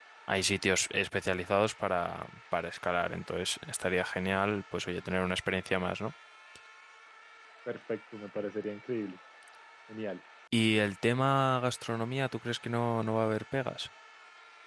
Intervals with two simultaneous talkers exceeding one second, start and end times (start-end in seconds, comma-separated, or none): none